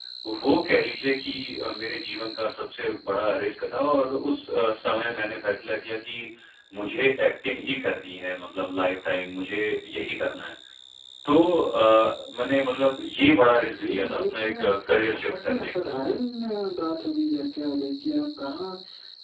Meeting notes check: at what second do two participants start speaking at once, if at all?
13.6 s

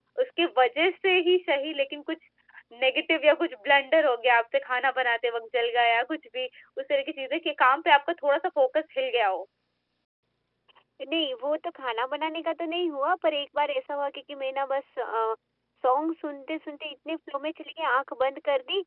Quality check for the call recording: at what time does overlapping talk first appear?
none

